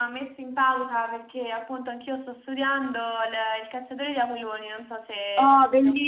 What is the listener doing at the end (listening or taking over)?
taking over